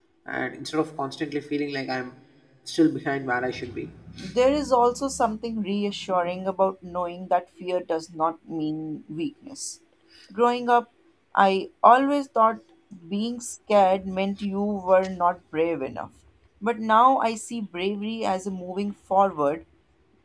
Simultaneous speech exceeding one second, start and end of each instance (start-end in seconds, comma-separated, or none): none